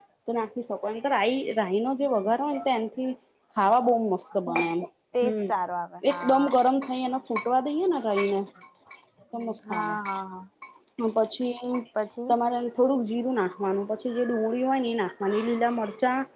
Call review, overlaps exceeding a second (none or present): none